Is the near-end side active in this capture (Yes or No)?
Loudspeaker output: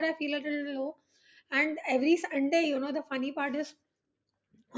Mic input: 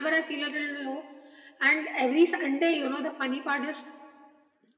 No